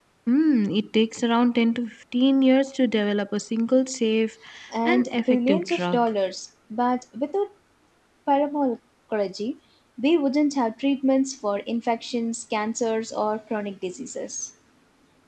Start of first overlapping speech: 4.8 s

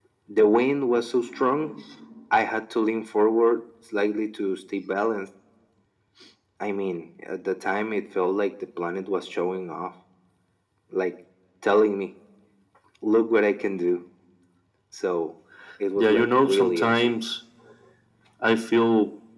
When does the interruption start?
16.0 s

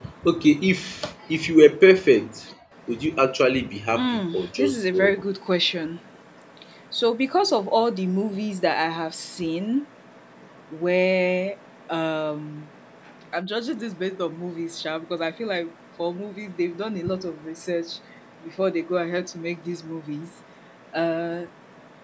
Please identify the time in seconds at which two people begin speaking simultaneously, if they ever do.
3.9 s

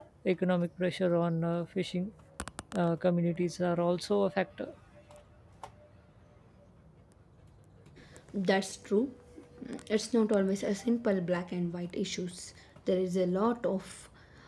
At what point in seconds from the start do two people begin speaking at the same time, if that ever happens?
none

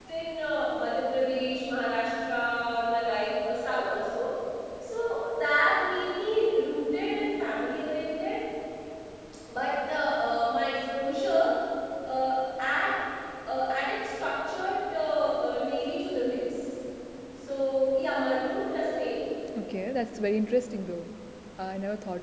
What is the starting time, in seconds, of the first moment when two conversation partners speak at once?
none

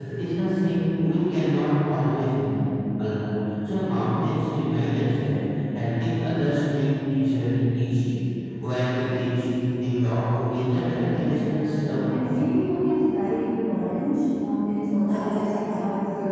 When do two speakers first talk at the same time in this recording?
10.7 s

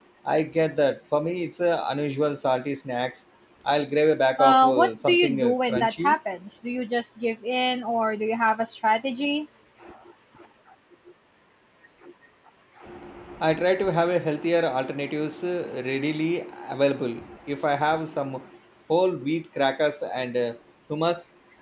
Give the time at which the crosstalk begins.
4.4 s

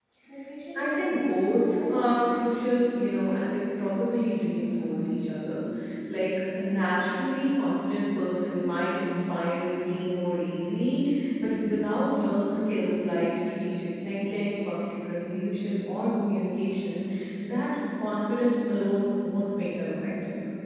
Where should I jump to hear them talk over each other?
0.7 s

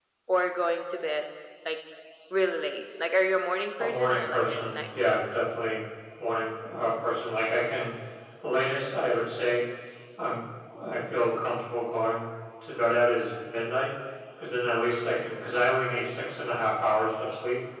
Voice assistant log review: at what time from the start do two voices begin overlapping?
3.8 s

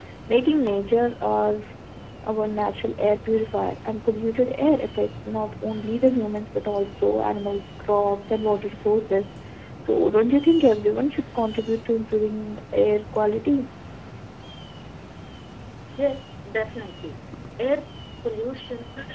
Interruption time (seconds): none

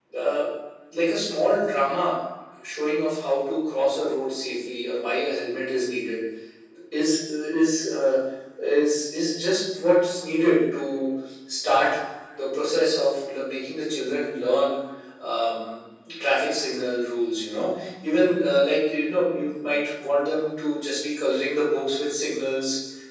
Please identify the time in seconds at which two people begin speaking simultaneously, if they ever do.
none

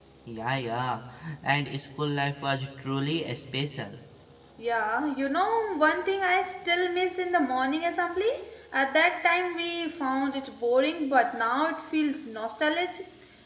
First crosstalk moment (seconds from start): none

